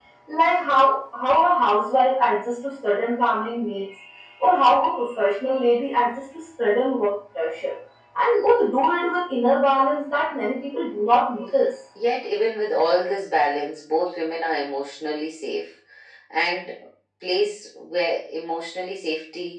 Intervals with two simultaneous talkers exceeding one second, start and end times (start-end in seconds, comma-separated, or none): none